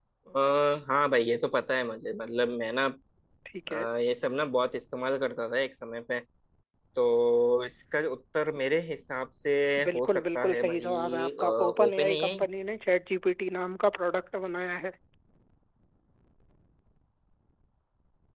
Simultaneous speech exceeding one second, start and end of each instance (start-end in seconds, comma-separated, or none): 9.9-12.3